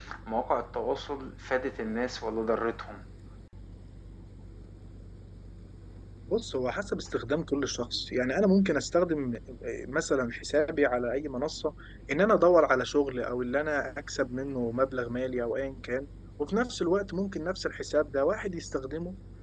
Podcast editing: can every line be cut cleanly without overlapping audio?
Yes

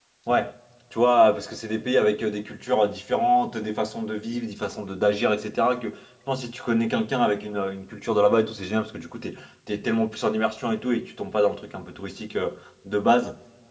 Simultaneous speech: No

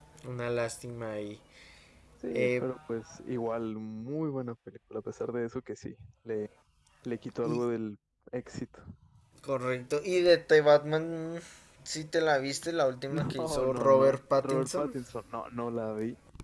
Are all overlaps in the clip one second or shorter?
No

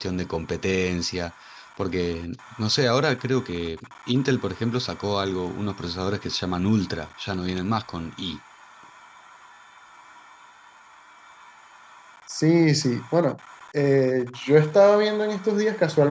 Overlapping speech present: No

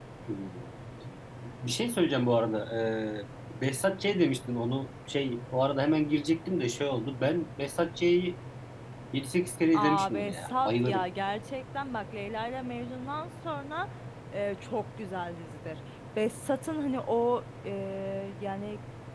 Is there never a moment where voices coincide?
No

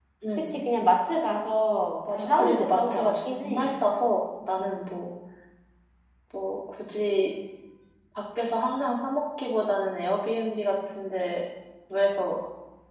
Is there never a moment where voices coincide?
No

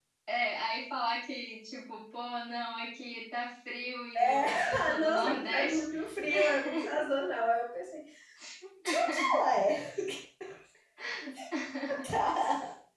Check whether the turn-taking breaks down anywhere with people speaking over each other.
Yes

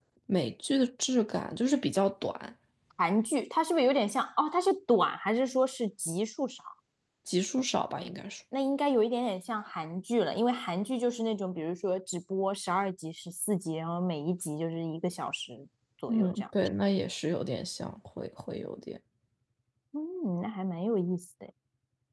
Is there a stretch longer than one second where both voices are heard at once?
No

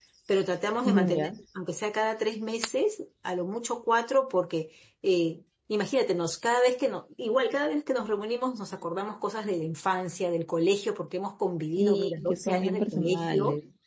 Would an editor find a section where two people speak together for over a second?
Yes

